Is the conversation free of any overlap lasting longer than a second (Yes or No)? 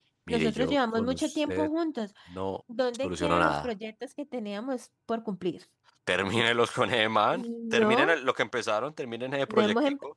No